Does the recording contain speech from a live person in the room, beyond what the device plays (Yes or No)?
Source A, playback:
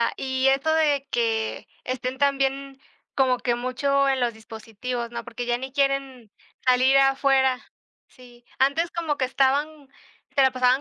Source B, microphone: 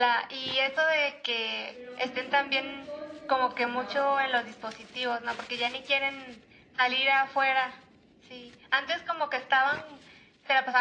Yes